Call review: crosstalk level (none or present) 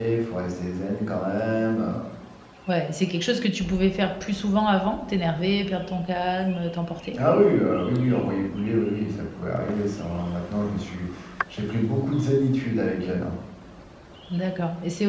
none